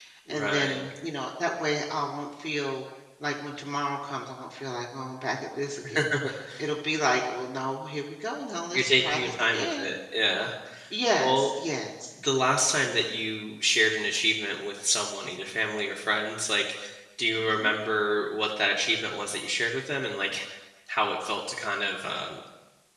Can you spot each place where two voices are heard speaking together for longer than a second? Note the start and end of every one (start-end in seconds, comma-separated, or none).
8.7-9.9